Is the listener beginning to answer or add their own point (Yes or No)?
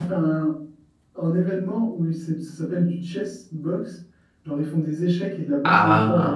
No